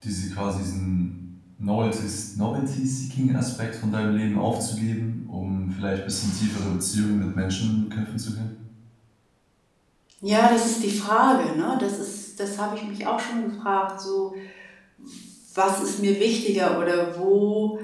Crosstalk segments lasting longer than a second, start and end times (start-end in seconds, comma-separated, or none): none